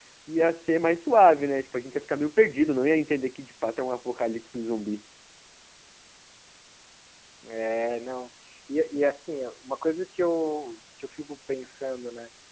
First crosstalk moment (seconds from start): none

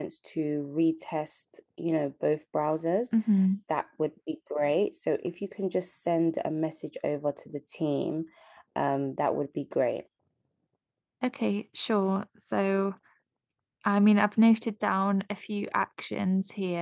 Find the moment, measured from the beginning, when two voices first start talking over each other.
none

